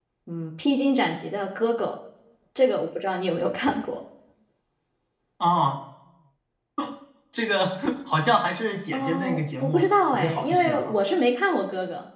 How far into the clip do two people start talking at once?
8.9 s

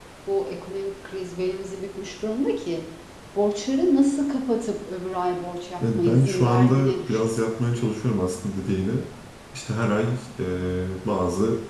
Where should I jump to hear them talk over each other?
5.8 s

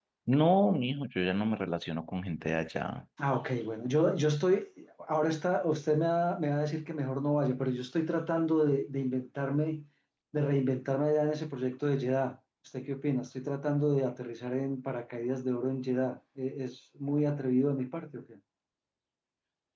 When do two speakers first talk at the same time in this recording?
none

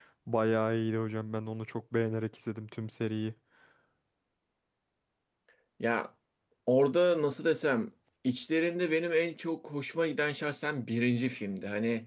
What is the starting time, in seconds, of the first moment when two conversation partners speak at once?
none

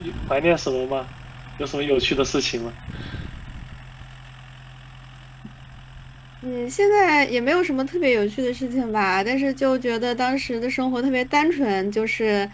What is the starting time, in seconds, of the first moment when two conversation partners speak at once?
none

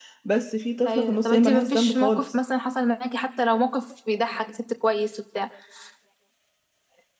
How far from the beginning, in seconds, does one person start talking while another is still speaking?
0.8 s

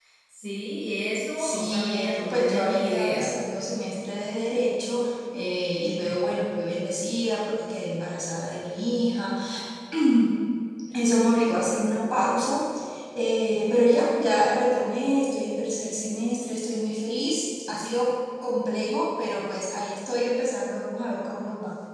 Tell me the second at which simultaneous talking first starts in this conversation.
1.4 s

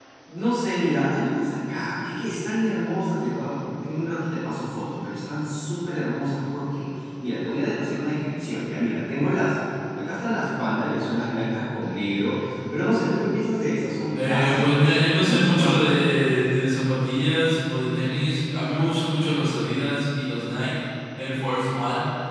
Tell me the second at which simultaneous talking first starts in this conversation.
14.2 s

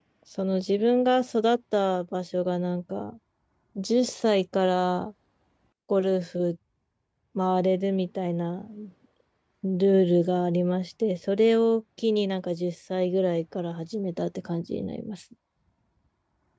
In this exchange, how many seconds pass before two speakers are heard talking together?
none

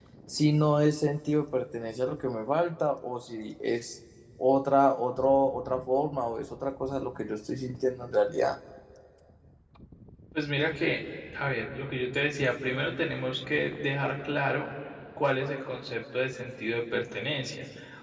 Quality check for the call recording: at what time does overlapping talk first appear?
none

